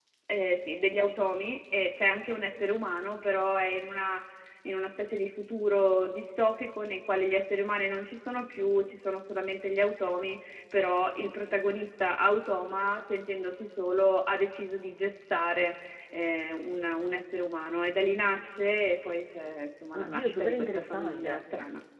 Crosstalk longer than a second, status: present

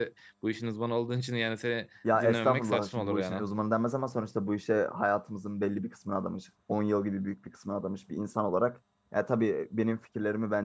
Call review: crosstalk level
present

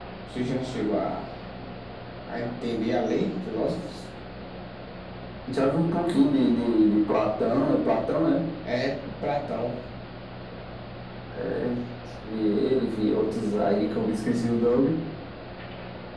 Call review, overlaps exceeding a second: none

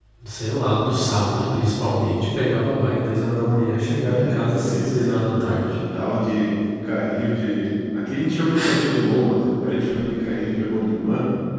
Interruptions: present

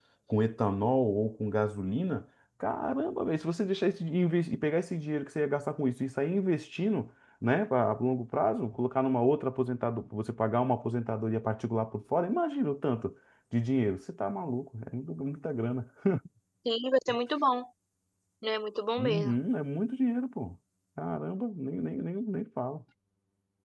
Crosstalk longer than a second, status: none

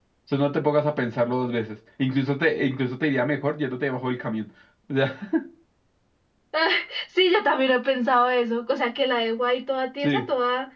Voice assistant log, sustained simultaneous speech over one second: none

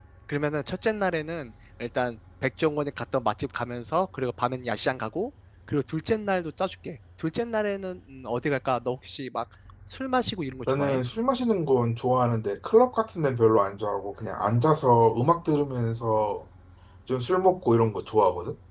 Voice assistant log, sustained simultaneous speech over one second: none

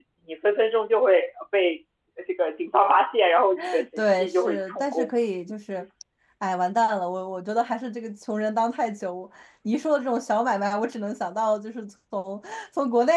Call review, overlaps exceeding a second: present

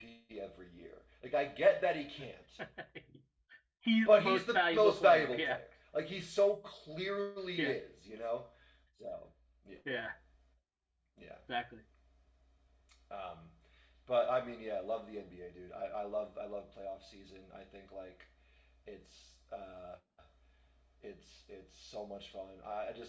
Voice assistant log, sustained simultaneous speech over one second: present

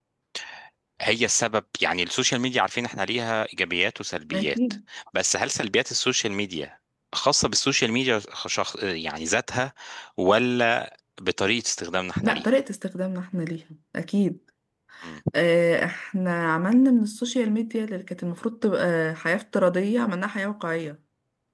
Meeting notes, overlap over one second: none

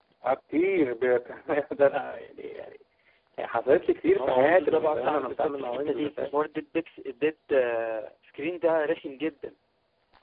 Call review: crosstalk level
present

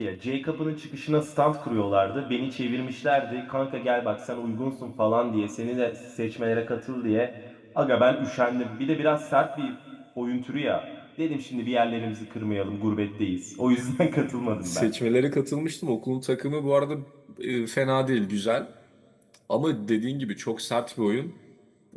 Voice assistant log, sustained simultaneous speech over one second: none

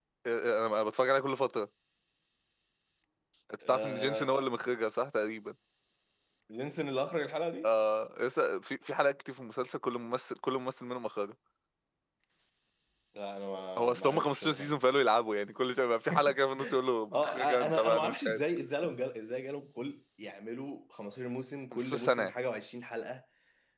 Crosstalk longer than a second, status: present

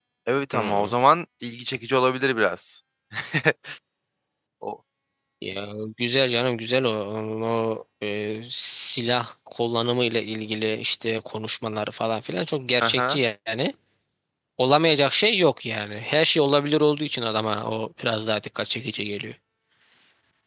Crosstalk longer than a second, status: none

